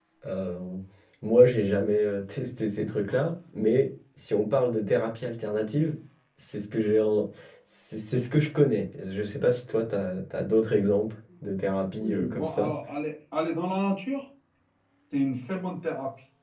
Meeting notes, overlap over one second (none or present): present